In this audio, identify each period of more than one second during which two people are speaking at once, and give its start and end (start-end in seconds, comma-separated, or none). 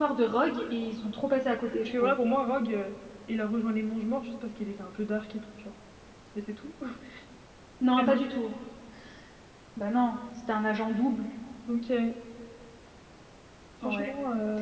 none